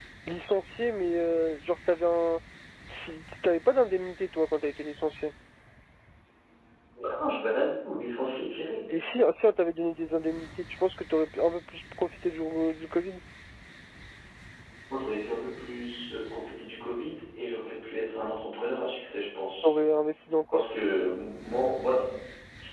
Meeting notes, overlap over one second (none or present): none